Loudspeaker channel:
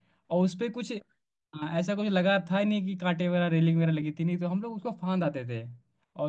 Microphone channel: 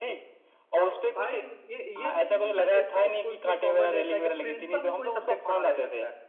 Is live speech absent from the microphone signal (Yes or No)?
No